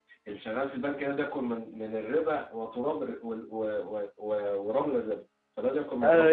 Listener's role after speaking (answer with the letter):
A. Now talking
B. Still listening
A